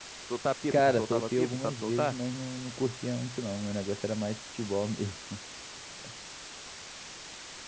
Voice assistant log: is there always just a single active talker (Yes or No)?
No